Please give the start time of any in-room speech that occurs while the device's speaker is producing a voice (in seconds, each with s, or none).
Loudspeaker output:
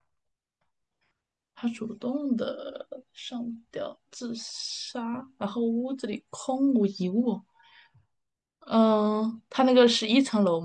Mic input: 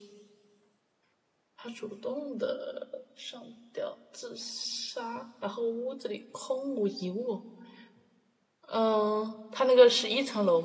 none